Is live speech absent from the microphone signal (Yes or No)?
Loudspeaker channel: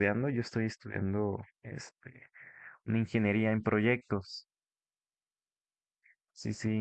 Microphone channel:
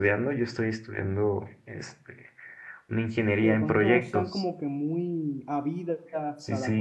No